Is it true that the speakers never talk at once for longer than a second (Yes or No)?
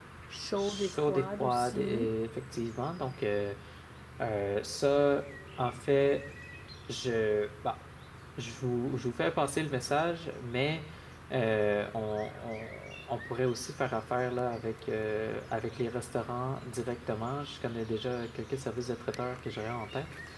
No